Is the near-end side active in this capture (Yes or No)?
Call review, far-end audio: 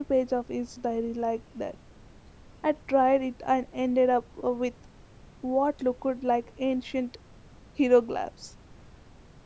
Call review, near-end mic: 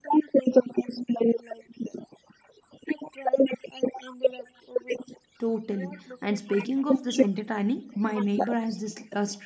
Yes